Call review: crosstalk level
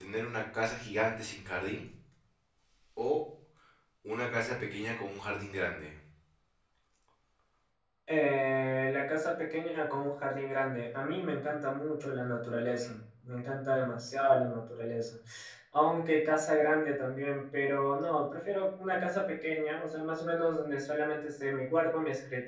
none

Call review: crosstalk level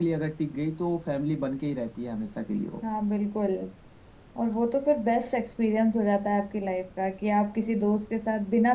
none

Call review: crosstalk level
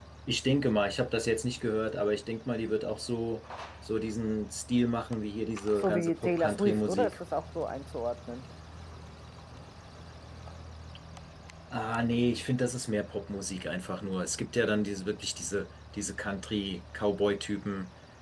present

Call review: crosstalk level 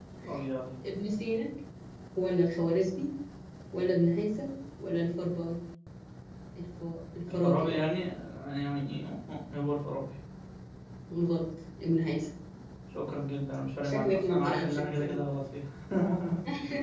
present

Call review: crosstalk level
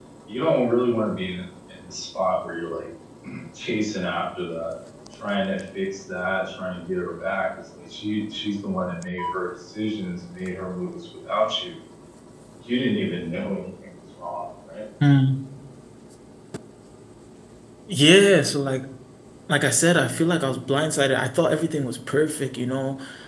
none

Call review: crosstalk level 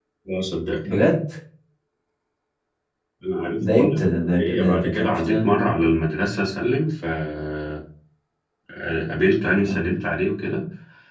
present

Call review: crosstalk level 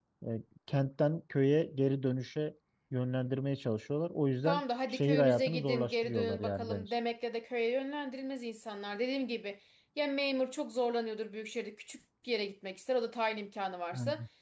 present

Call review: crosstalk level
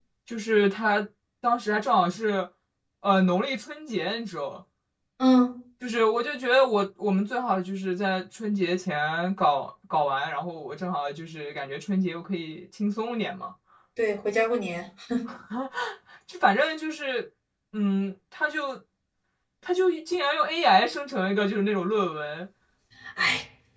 none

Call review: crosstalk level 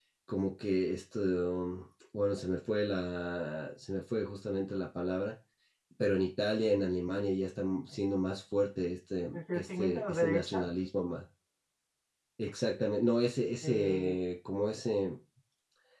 present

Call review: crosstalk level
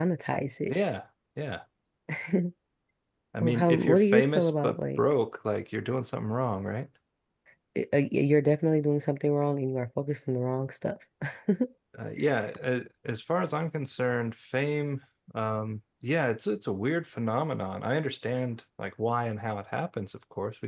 present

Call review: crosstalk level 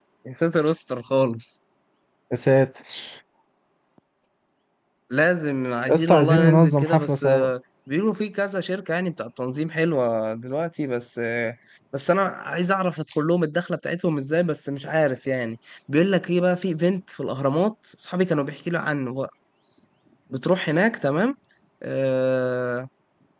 present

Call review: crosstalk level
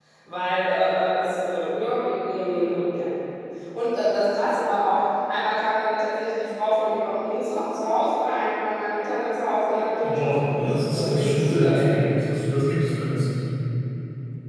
present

